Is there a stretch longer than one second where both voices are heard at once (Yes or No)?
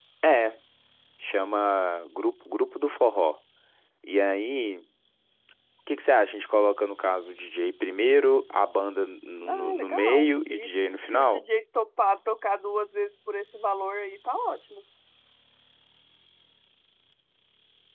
Yes